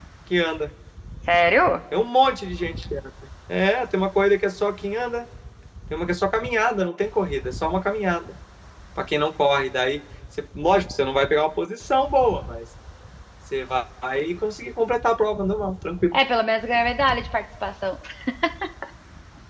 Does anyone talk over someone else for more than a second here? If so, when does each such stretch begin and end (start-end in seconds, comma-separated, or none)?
none